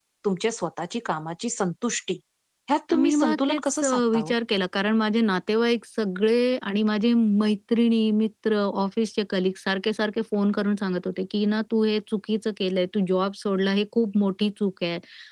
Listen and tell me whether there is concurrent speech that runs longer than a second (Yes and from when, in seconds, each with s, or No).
Yes, from 2.9 s